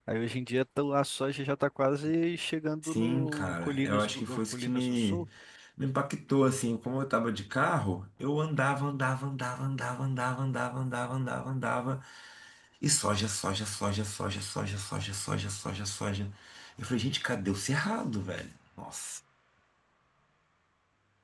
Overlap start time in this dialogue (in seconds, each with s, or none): 2.8 s